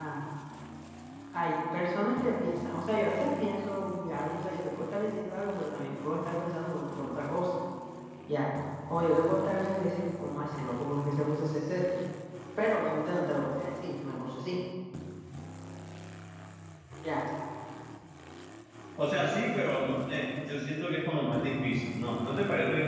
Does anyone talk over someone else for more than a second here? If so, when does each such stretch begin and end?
none

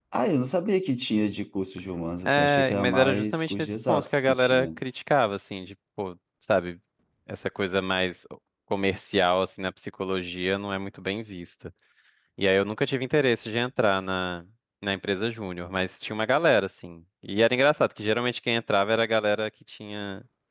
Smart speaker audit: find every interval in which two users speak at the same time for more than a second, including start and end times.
2.3-4.7

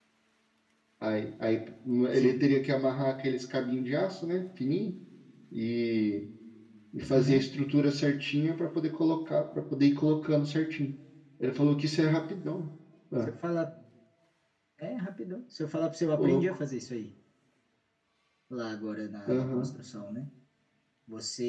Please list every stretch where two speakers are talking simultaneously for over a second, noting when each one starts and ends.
none

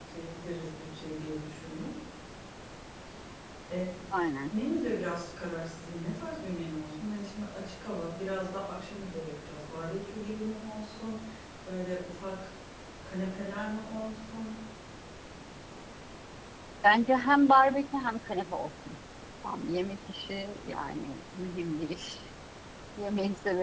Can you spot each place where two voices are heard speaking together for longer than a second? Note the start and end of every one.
none

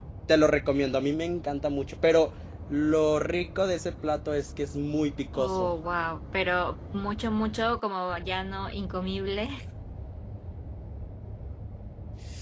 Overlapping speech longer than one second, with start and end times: none

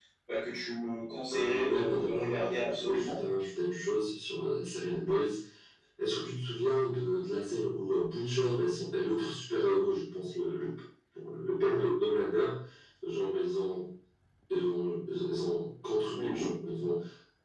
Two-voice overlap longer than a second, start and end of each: 1.3-3.2

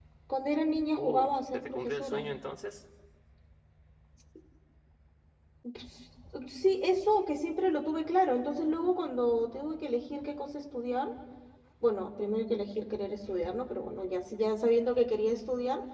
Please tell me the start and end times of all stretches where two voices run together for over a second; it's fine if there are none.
1.0-2.2

